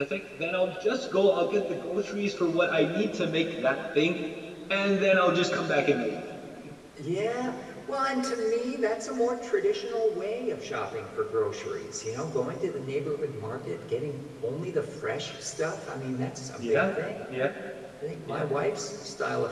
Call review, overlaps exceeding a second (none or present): none